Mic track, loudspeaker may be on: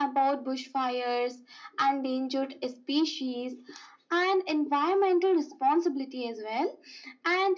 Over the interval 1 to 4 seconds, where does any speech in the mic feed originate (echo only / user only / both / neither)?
echo only